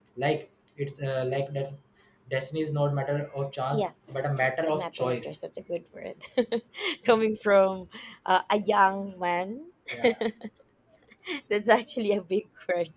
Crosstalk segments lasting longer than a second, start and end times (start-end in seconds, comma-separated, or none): 3.7-5.3